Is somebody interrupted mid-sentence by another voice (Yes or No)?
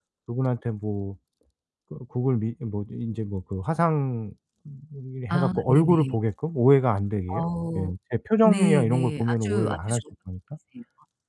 Yes